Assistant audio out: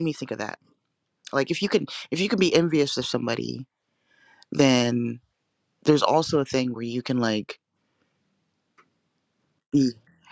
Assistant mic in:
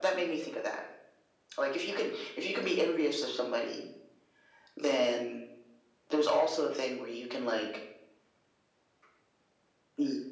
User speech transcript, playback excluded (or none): none